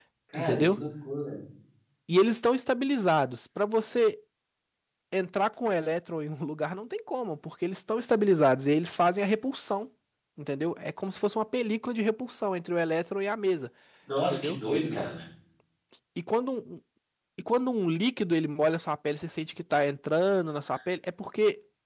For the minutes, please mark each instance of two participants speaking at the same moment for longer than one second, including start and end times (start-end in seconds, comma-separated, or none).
none